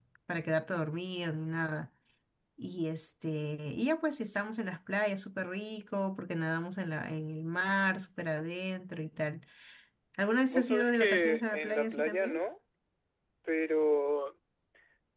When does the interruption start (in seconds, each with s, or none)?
10.5 s